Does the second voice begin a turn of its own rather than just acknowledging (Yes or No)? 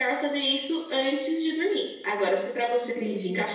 No